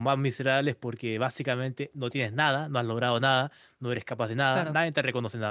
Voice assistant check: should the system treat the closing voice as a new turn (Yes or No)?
No